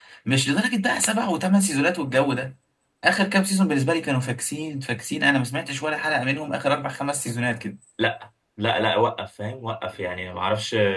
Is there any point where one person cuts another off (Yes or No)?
No